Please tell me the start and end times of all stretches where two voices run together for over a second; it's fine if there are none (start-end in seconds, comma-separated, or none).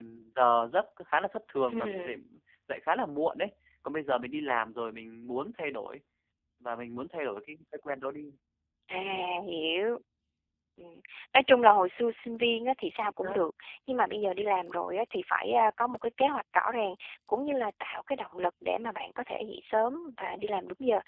none